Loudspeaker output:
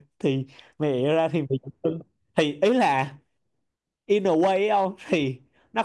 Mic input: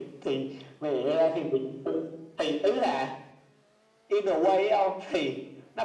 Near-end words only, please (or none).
none